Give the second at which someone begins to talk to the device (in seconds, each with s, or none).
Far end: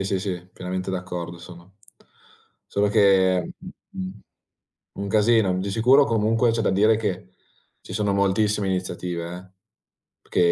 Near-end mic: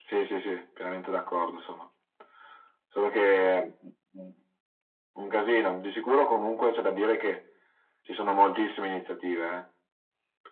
none